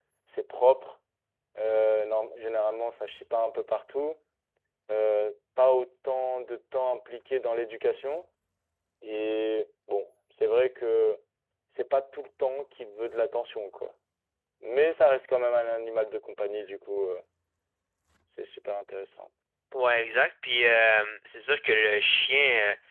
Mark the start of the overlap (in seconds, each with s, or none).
none